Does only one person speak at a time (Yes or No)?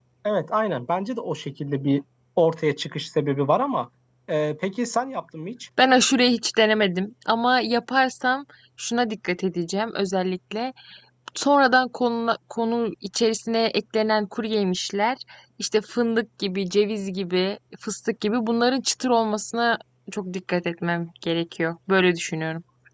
Yes